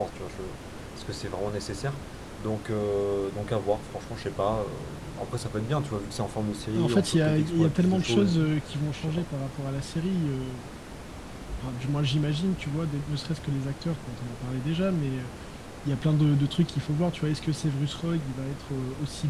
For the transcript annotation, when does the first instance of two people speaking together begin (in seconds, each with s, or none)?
6.7 s